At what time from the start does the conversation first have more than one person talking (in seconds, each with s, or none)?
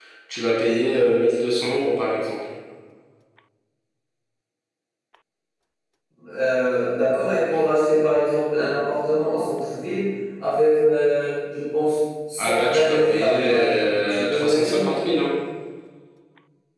12.4 s